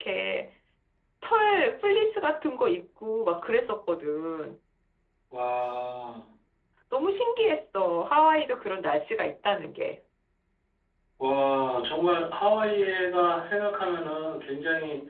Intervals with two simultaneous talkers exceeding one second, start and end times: none

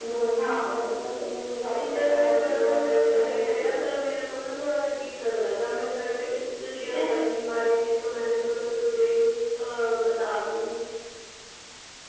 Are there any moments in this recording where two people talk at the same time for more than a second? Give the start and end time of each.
1.8-3.8

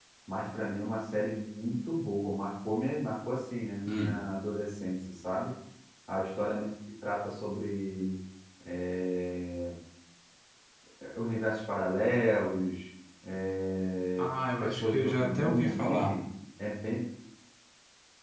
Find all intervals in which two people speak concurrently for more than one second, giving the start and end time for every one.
14.2-16.1

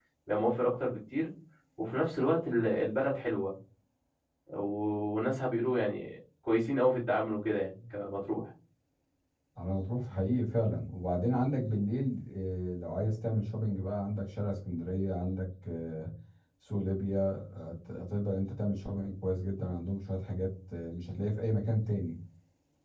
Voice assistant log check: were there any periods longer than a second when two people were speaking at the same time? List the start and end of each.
none

